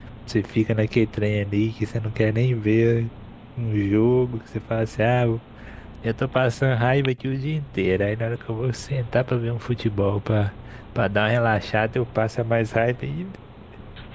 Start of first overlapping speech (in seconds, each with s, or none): none